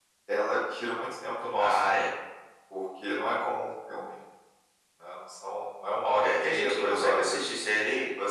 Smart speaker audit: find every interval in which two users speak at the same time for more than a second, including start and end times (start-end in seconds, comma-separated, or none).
6.2-7.5